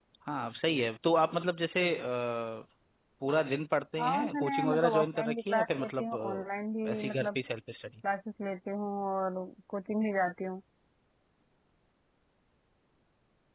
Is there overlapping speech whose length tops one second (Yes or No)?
Yes